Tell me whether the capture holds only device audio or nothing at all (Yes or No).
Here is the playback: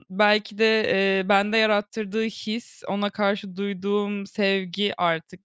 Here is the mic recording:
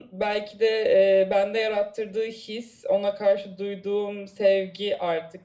Yes